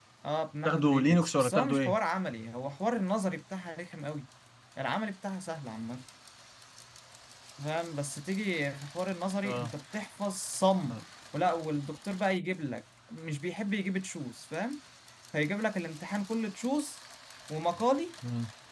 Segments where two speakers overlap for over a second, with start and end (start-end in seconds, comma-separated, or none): 0.6-2.0